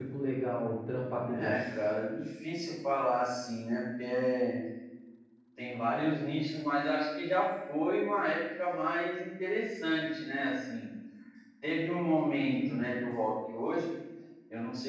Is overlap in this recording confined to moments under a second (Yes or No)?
Yes